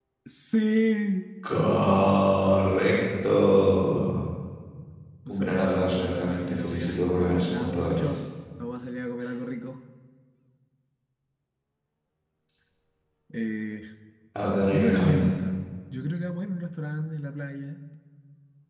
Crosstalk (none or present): present